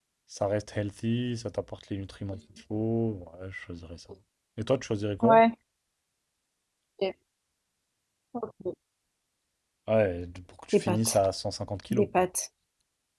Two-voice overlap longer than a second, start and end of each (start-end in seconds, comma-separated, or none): none